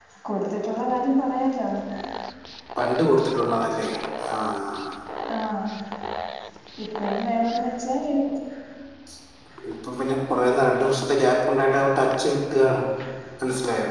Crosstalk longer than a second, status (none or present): none